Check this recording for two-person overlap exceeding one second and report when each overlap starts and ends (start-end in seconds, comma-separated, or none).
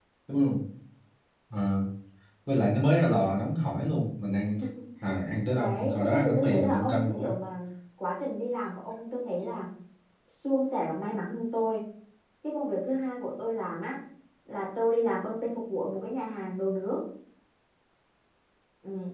5.5-7.3